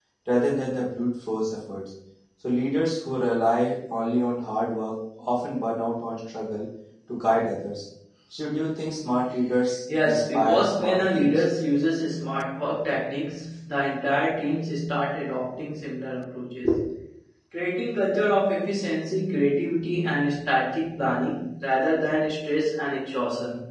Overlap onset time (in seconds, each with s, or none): 9.9 s